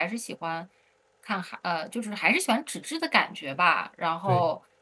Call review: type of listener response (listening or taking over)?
listening